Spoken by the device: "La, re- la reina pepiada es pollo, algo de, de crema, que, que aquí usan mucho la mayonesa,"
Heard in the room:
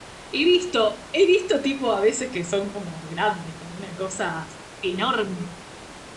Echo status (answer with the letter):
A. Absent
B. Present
A